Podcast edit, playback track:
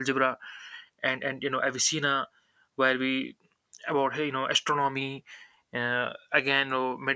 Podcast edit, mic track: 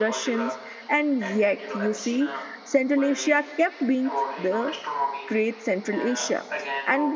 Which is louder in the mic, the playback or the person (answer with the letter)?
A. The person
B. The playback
A